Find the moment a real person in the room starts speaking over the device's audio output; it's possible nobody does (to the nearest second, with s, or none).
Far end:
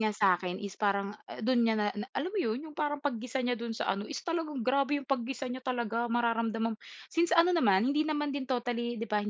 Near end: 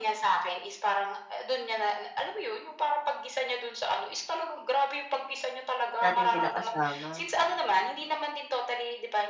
6 s